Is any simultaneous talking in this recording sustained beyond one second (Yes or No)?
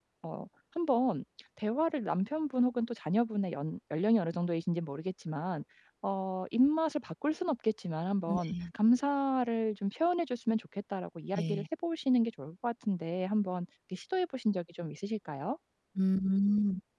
No